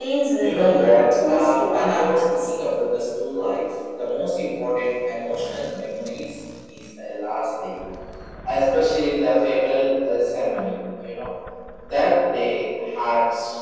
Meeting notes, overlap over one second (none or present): present